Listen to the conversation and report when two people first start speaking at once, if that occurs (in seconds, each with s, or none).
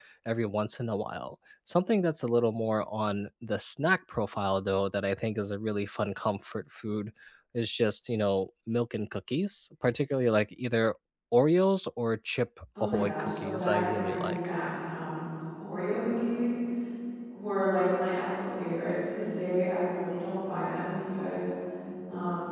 12.8 s